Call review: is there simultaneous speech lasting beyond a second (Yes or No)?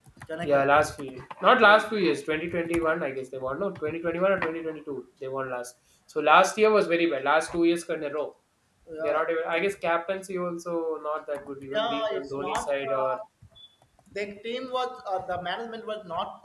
Yes